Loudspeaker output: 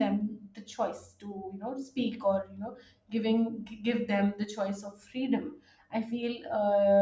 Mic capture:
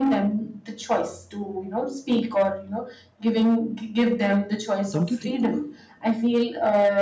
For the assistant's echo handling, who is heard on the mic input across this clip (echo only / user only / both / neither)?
both